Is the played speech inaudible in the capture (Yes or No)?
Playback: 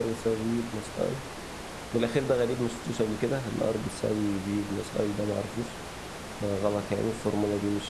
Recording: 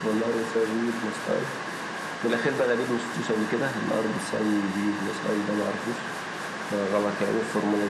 No